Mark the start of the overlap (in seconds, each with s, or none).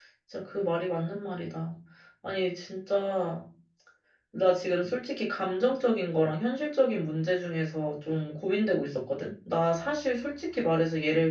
none